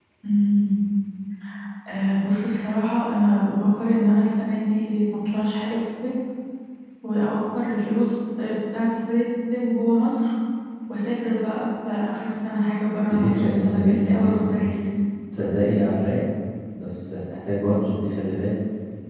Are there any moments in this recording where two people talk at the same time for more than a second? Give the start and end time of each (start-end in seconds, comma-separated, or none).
13.0-14.7